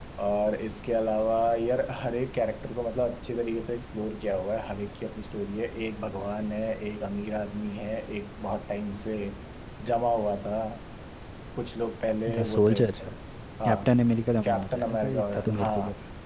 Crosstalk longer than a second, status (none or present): present